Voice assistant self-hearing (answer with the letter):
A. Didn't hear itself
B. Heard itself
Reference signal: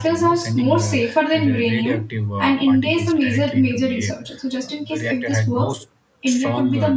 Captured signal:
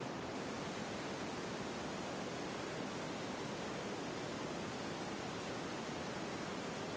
A